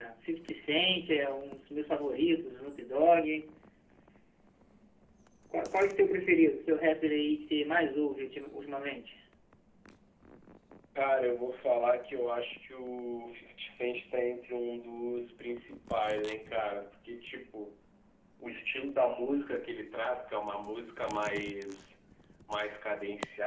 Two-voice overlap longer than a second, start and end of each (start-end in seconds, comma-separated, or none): none